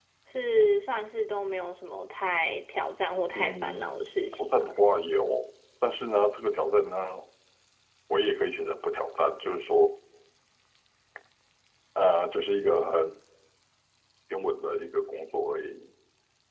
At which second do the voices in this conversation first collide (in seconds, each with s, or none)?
3.3 s